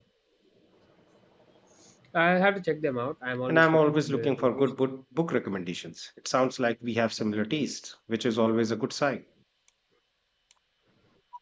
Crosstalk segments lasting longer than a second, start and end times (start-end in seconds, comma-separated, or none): 3.5-4.7